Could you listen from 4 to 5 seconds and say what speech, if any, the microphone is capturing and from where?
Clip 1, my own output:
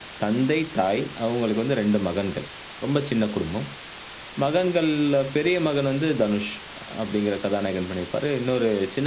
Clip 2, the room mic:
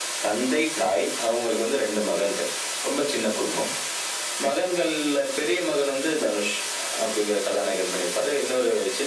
echo only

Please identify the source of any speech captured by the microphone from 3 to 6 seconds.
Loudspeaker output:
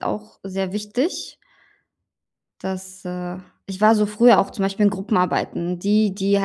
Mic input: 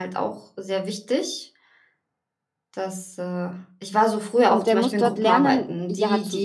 both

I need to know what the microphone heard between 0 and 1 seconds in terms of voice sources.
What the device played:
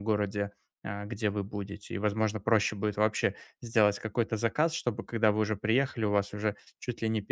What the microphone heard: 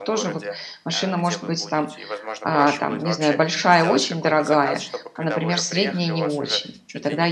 both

